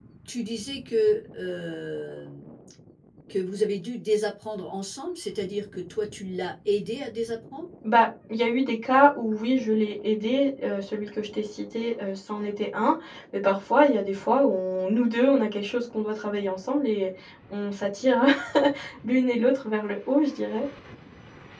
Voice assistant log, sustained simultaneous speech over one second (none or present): none